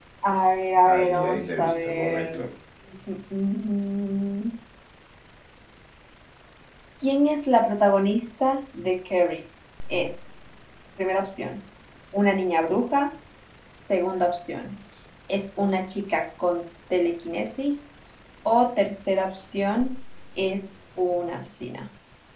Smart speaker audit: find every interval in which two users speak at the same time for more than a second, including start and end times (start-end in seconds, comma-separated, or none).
0.8-2.4